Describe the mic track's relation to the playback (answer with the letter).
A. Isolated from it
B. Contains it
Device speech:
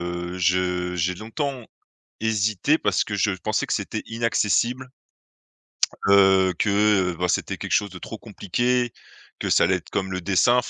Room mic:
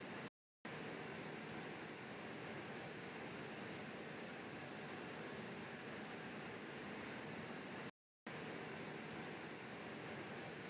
A